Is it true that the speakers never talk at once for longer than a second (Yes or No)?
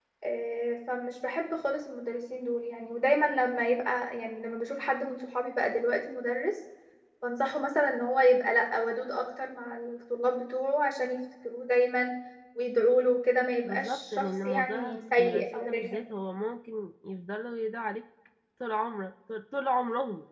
No